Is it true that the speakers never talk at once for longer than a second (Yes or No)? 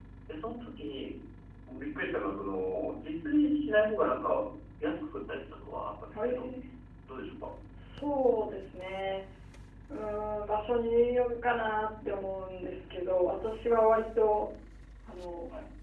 Yes